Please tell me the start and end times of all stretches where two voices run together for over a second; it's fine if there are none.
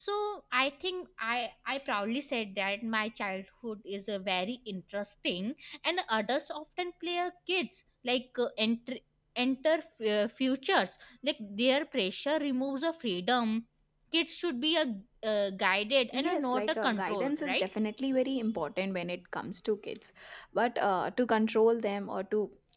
16.1-17.7

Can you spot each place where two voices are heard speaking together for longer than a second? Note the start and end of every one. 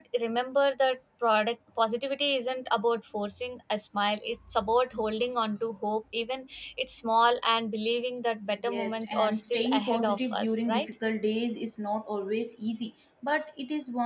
8.7-10.9

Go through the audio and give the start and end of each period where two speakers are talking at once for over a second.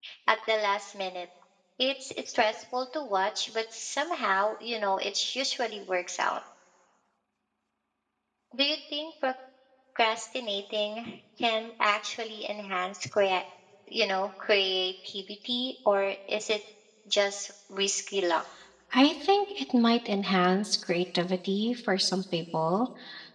none

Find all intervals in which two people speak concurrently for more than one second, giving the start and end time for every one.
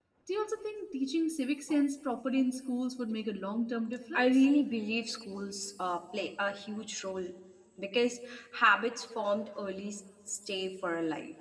none

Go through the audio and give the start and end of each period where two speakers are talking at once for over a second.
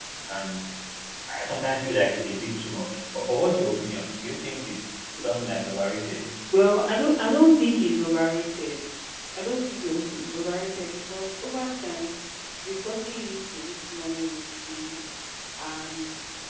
none

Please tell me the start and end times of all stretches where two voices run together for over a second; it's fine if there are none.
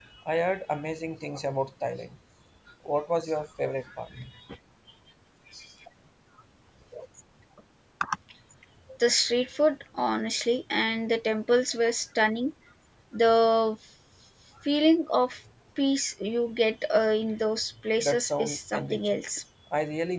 18.0-19.2

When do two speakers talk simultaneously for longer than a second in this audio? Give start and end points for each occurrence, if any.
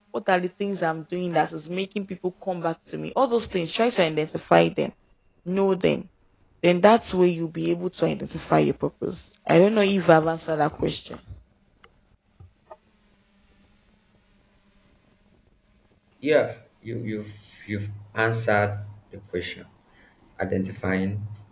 none

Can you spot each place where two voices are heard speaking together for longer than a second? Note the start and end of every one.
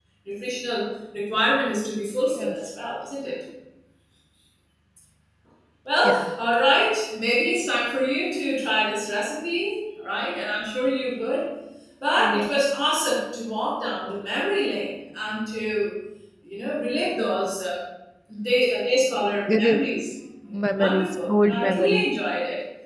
20.8-22.0

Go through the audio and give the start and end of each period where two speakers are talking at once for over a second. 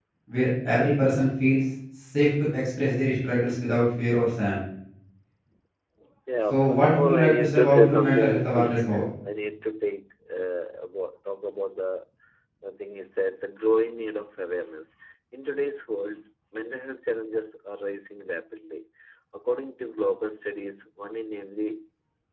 6.5-8.8

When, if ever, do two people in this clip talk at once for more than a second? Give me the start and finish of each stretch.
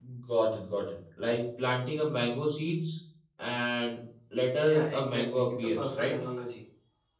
4.6-6.2

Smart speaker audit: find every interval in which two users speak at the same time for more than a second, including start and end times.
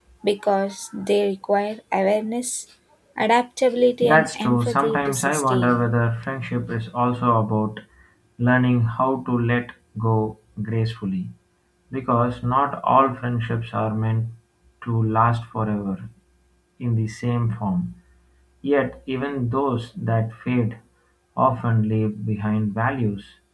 4.0-5.9

